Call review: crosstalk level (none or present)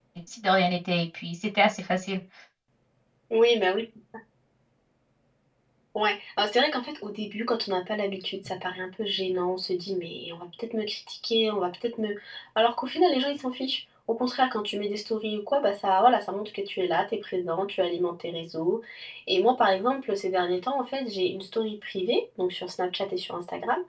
none